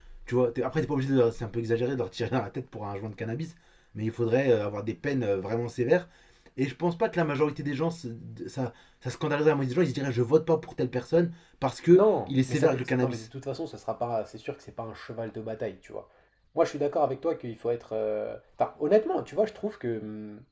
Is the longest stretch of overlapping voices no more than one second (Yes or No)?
No